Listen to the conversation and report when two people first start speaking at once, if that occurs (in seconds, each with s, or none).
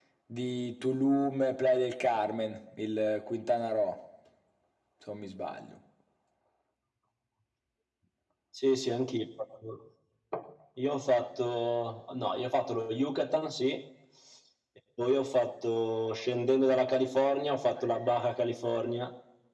none